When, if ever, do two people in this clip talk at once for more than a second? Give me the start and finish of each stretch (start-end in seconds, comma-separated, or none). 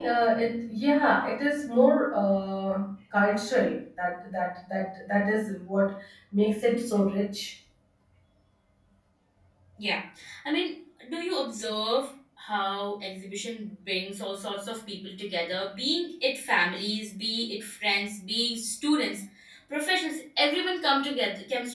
none